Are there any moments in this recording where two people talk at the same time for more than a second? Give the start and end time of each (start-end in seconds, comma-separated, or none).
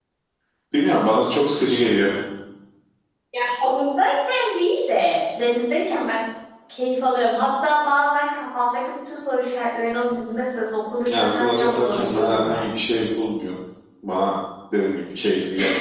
11.1-12.6